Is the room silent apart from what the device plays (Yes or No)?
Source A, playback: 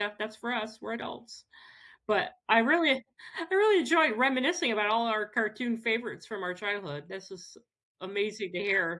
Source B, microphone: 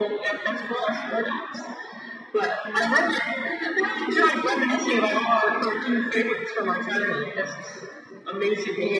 Yes